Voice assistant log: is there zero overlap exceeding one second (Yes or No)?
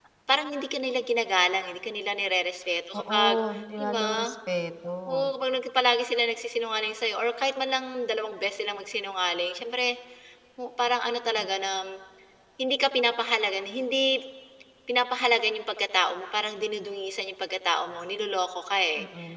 Yes